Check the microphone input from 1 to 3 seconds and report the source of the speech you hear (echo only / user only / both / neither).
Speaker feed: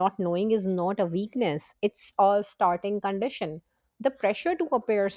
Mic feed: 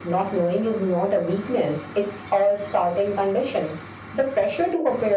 echo only